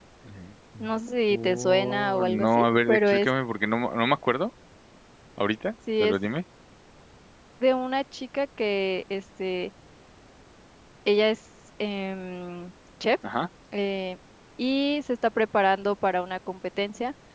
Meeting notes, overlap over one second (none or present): present